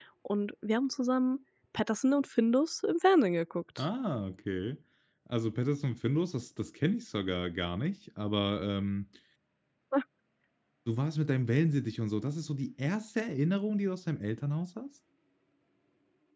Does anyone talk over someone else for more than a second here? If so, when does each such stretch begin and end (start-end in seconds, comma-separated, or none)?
none